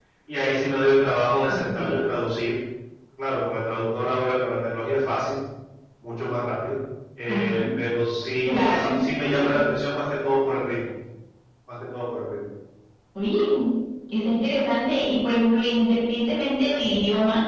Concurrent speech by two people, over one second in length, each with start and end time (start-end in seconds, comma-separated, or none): none